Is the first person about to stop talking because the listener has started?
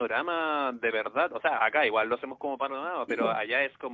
No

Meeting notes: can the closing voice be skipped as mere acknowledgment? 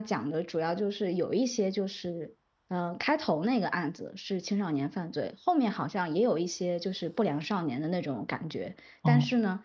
Yes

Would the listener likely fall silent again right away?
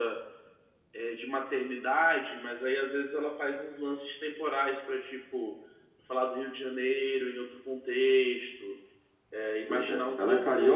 No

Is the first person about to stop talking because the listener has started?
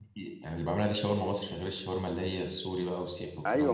Yes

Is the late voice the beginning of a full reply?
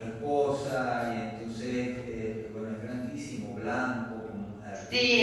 Yes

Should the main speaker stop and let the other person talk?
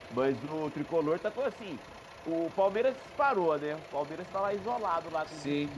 Yes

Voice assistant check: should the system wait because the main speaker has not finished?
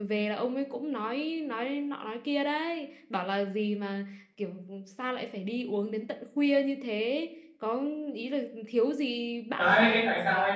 No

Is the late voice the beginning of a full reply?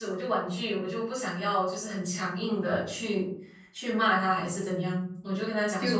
Yes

